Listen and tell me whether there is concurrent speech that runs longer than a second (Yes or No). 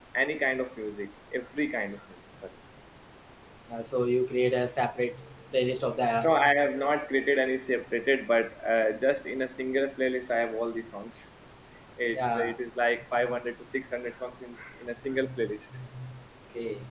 No